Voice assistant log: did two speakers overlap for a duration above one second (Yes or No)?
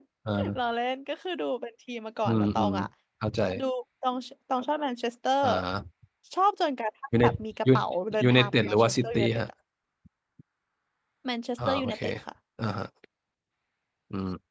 Yes